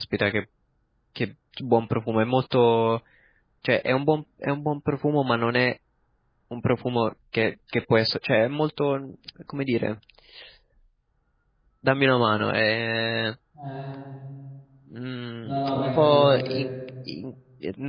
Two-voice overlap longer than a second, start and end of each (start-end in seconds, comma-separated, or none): 15.4-16.7